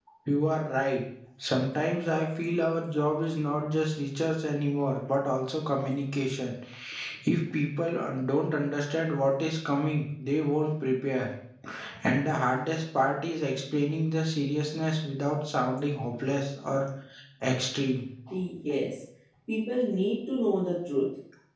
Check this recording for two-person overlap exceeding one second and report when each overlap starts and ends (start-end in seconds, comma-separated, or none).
none